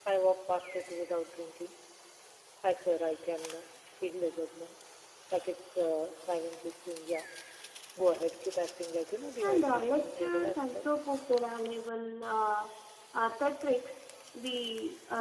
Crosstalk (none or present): present